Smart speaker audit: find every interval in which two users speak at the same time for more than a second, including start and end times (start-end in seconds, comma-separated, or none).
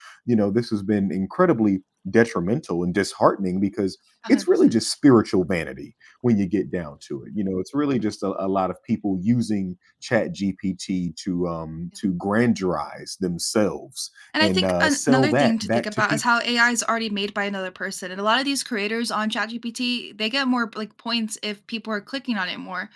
14.4-16.2